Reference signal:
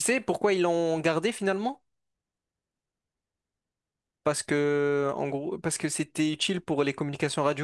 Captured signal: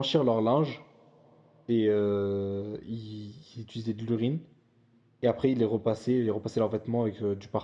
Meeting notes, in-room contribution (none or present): present